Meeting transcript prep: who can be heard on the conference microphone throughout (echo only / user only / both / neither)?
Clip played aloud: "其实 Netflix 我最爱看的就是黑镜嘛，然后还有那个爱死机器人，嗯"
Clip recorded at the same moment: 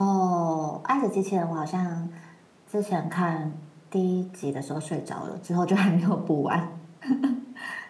user only